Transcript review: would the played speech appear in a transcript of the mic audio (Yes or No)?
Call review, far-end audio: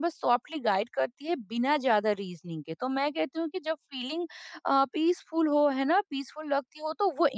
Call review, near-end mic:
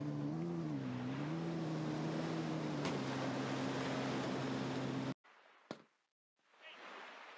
No